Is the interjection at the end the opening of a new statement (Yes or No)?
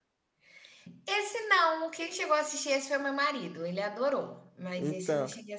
Yes